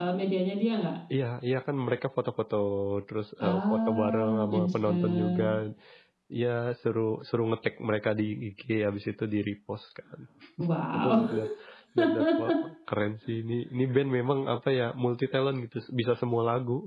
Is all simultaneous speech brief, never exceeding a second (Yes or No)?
No